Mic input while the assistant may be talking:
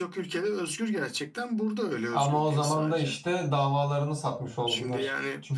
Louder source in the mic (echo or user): user